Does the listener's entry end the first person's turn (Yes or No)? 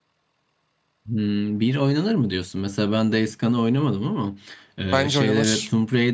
No